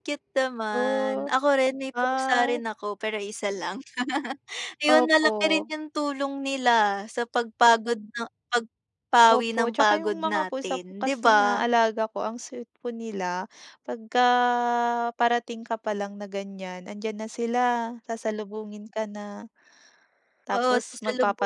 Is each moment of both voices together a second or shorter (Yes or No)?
No